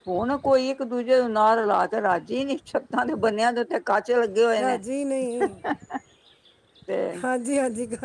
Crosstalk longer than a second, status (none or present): none